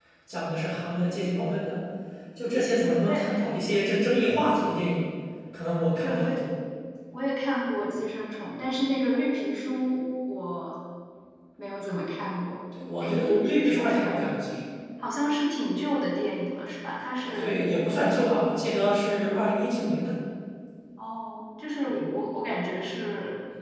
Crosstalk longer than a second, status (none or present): present